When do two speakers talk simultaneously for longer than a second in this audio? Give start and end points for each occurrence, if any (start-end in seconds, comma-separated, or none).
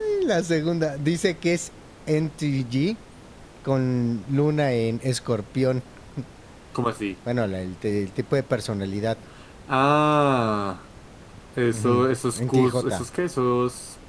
11.7-13.1